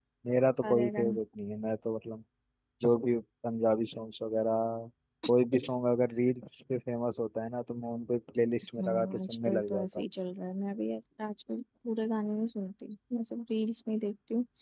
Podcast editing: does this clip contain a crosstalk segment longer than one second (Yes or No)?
Yes